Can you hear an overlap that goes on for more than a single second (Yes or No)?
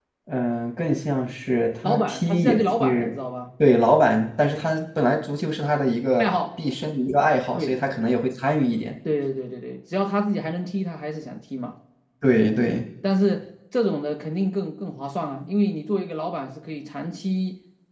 Yes